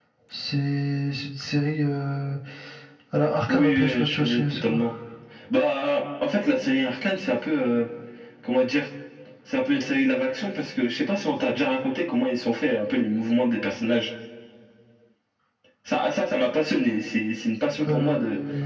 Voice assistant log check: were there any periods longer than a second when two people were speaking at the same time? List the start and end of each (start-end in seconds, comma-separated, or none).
3.5-4.8